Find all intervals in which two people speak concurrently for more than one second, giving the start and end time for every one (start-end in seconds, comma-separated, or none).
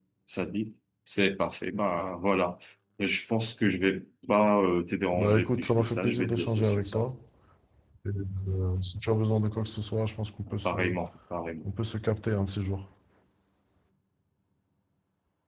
5.1-7.0